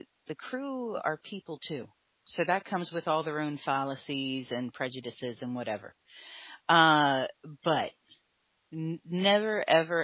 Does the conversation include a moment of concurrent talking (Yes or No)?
No